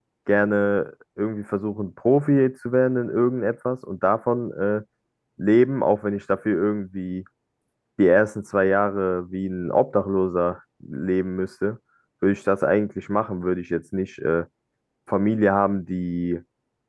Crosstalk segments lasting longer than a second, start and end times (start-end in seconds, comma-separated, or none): none